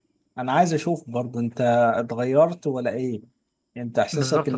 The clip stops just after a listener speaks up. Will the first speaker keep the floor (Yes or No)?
No